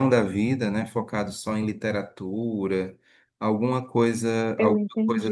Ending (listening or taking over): listening